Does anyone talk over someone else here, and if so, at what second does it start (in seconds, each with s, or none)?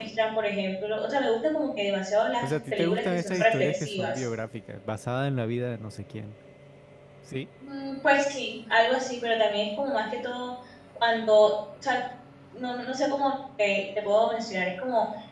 2.4 s